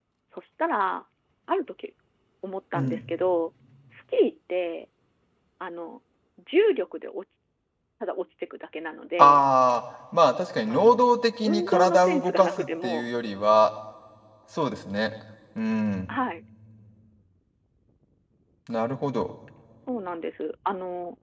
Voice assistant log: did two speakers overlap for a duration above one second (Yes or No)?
Yes